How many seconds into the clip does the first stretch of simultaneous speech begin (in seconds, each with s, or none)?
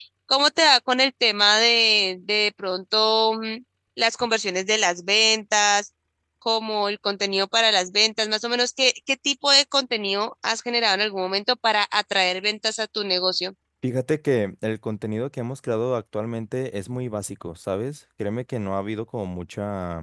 none